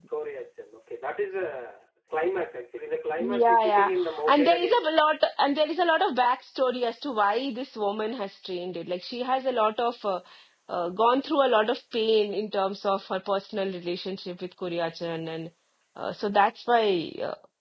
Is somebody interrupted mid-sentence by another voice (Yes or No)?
Yes